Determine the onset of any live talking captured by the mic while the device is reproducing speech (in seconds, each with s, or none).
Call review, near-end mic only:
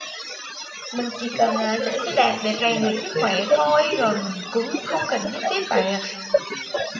0.9 s